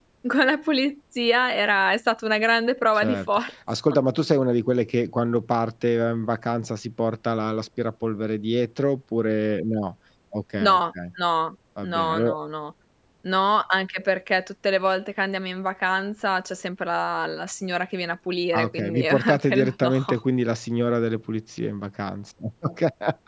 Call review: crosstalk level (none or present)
present